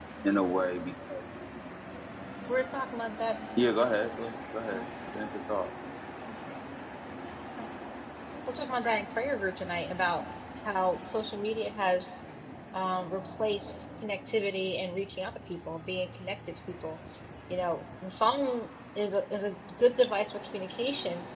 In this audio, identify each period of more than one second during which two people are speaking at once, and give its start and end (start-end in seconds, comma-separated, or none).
none